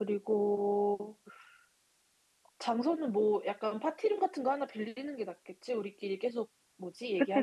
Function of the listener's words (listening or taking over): taking over